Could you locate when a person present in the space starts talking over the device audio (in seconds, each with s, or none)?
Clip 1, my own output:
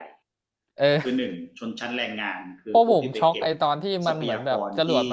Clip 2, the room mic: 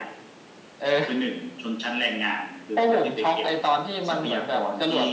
none